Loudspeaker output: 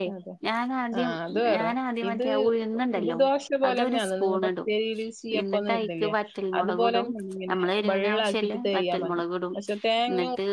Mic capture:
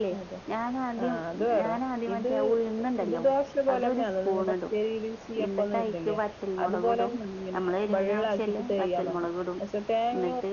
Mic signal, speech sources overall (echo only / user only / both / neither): echo only